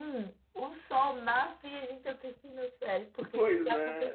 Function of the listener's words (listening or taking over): listening